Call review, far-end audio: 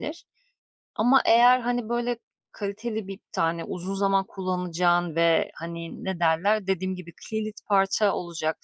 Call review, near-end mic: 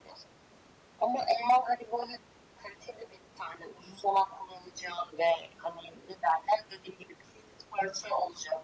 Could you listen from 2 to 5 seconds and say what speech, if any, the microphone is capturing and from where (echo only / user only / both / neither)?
echo only